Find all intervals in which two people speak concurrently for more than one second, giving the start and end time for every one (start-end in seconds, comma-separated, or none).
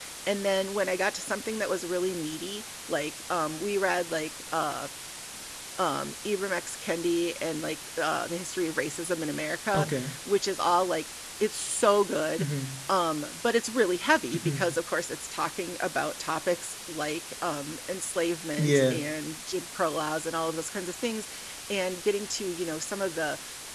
none